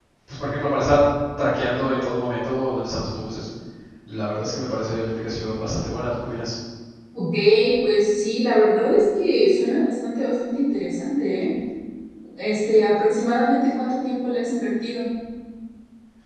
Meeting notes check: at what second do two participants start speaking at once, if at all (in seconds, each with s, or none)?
none